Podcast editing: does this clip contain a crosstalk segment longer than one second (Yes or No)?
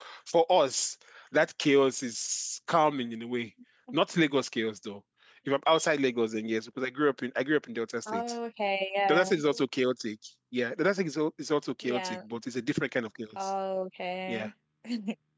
No